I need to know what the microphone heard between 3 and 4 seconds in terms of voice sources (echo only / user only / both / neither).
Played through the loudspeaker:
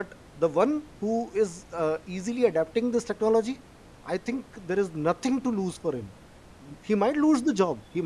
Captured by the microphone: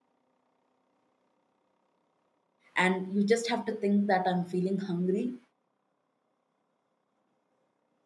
user only